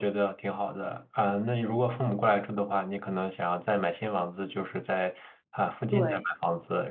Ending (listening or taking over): listening